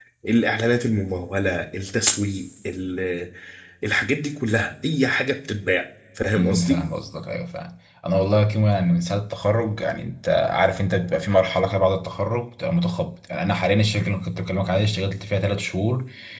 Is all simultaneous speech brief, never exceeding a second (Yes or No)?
Yes